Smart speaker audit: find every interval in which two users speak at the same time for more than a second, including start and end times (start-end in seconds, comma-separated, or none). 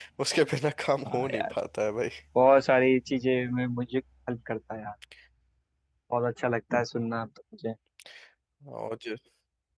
none